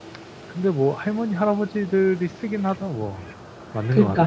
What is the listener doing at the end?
taking over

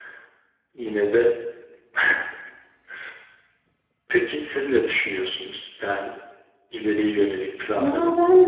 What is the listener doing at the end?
taking over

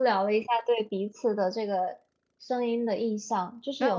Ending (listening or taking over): taking over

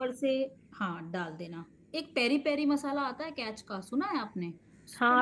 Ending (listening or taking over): taking over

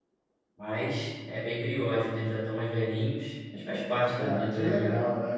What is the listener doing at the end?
taking over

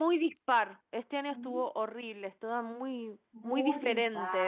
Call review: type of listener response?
taking over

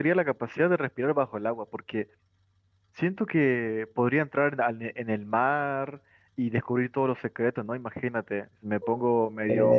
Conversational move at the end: listening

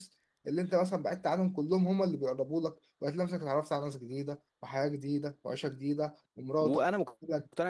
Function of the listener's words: taking over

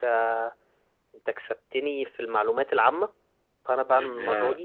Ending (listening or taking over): listening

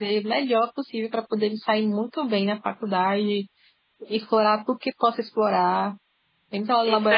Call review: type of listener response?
listening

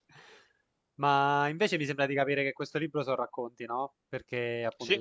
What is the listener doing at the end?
listening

